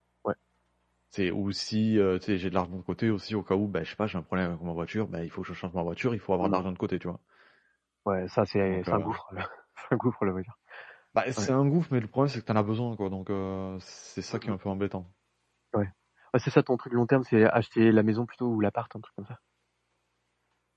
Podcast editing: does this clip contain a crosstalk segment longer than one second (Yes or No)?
No